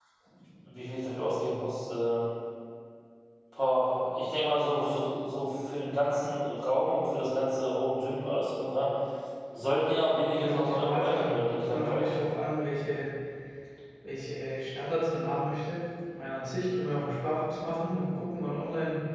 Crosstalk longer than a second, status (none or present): present